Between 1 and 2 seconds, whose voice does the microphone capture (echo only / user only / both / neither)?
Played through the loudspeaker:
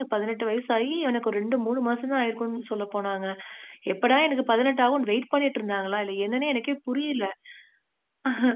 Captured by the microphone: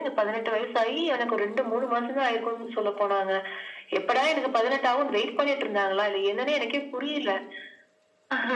echo only